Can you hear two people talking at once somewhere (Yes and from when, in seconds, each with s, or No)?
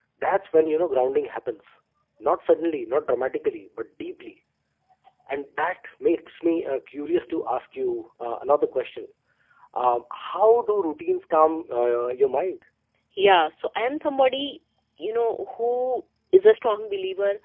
No